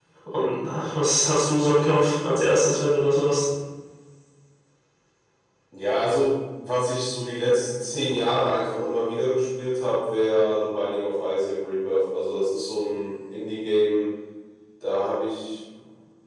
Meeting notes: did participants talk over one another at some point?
No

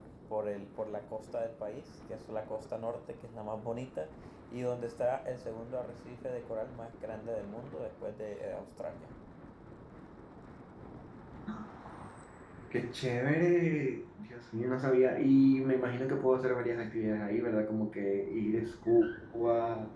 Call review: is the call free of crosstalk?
Yes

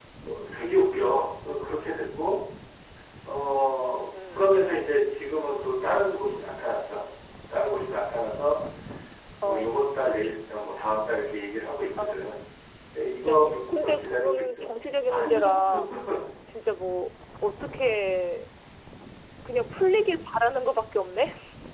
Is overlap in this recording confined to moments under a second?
No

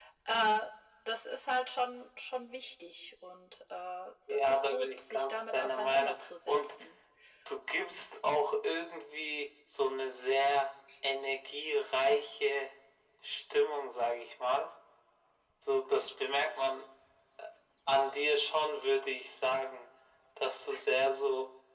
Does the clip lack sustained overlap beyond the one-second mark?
No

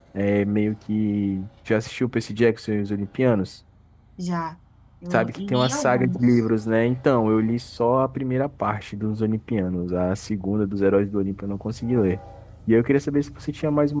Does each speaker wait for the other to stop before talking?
No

